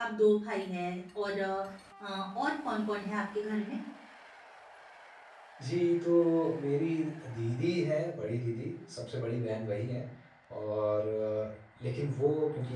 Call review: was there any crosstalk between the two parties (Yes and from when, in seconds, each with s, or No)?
No